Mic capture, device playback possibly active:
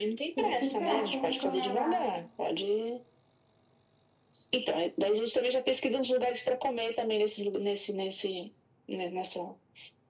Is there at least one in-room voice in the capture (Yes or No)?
Yes